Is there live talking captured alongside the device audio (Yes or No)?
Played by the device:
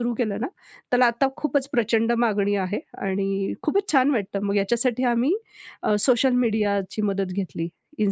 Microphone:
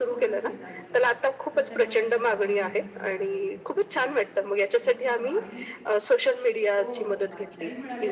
Yes